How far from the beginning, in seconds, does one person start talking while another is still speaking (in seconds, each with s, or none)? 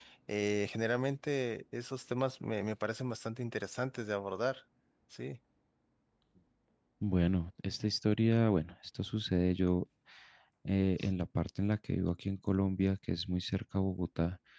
none